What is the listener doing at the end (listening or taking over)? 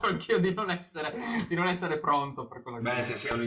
taking over